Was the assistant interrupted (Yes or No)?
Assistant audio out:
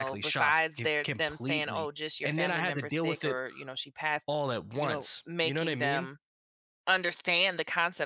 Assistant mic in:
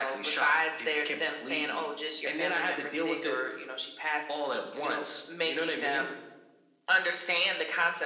No